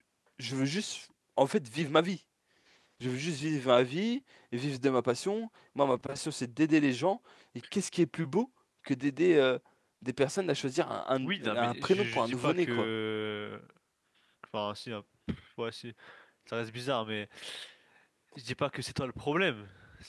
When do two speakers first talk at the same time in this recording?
11 s

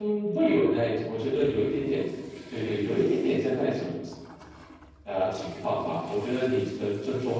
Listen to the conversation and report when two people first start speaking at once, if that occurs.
none

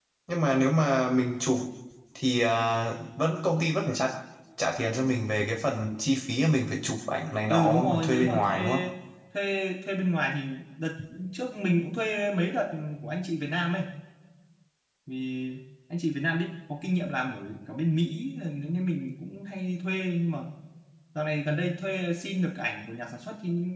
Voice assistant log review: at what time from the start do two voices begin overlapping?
7 s

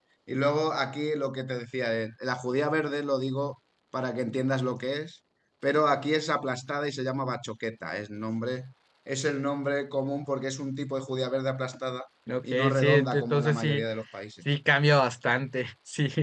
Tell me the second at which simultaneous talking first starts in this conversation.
13 s

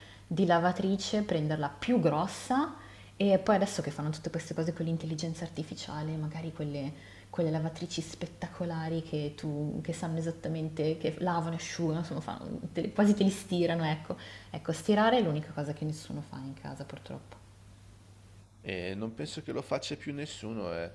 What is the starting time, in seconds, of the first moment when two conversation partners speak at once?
none

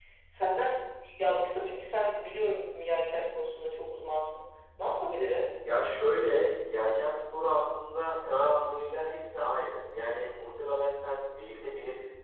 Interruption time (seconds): none

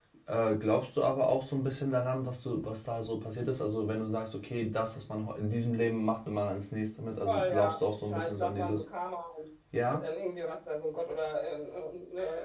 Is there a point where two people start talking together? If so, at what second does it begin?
7 s

